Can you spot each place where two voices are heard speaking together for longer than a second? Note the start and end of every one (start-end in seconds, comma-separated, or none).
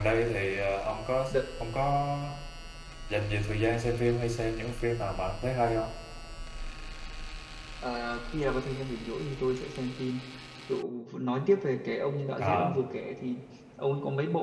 none